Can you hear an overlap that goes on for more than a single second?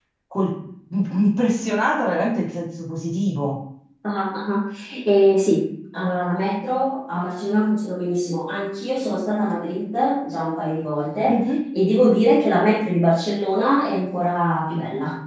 No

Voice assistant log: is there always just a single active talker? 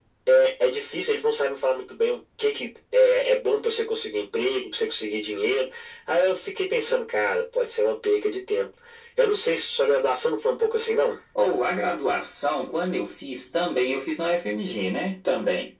Yes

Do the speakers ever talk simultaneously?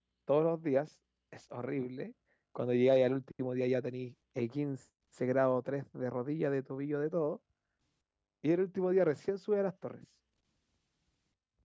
No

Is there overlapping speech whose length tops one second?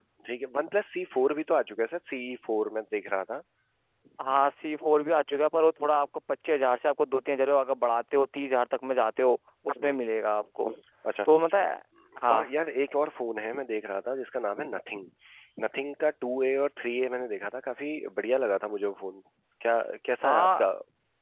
No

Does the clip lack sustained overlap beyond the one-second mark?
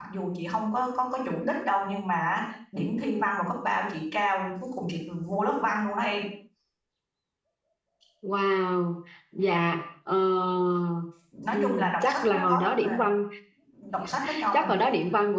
No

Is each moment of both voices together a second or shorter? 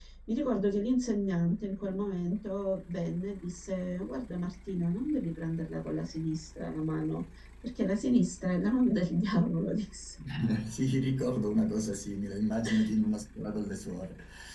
Yes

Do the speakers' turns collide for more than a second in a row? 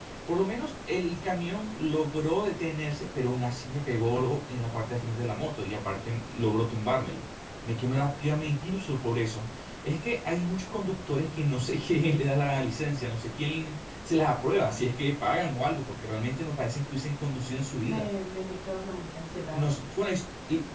No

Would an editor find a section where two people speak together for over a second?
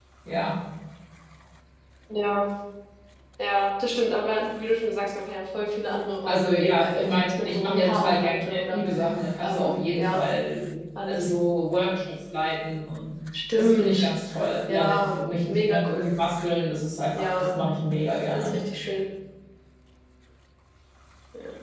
Yes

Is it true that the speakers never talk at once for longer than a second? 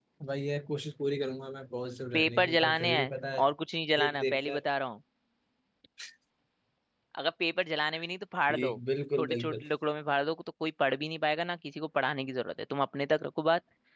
No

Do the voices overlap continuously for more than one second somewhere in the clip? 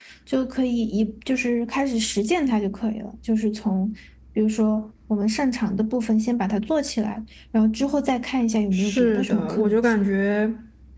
Yes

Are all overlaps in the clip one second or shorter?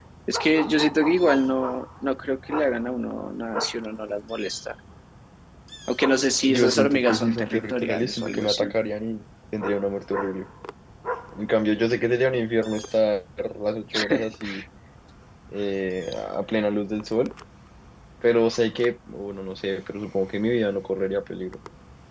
No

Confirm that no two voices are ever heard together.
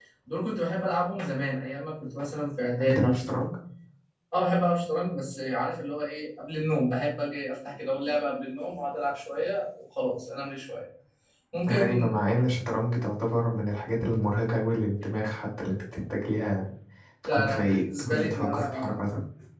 No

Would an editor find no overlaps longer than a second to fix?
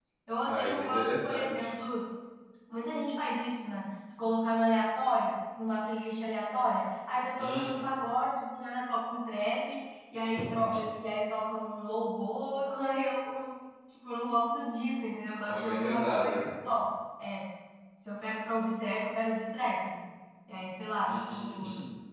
No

